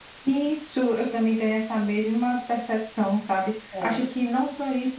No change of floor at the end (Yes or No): Yes